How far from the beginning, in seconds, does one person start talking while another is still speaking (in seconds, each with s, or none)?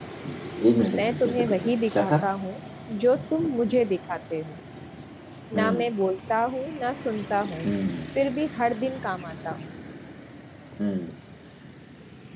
1.0 s